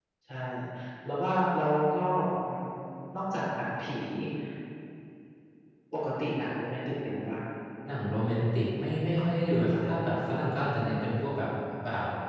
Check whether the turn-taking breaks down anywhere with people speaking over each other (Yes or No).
No